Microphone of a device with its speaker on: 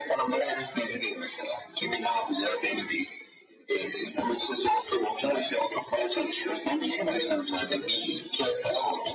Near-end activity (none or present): none